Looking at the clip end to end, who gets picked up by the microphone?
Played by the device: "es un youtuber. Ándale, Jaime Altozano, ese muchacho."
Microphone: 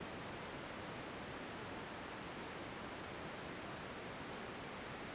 neither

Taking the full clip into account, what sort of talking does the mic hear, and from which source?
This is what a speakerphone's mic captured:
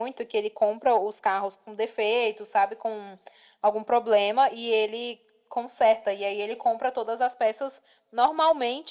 echo only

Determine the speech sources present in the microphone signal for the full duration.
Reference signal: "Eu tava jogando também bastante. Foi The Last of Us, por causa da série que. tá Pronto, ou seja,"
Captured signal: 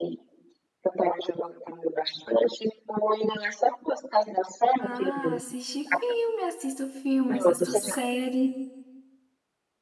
both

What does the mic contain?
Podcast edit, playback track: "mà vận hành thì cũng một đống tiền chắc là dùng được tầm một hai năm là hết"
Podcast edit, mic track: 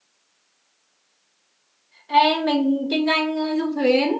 user only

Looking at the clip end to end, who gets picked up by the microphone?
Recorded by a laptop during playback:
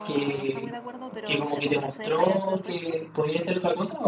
both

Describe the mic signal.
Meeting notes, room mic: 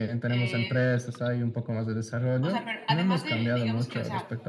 both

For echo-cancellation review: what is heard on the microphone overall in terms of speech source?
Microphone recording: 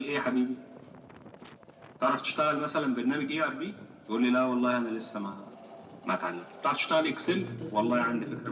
both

